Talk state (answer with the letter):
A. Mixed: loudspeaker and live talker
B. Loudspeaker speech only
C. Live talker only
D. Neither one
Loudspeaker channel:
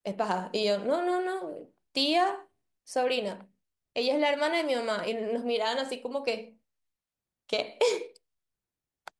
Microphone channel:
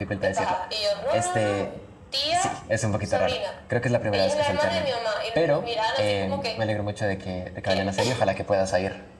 A